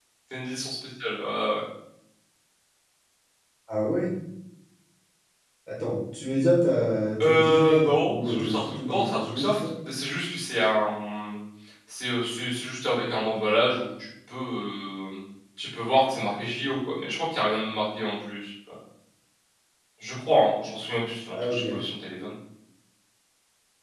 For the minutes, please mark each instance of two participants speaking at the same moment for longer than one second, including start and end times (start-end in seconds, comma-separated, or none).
7.2-9.6